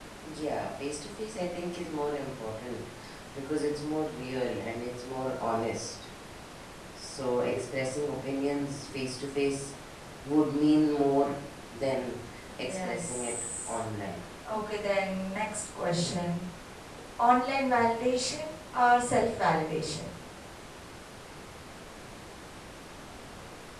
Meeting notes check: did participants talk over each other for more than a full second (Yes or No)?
Yes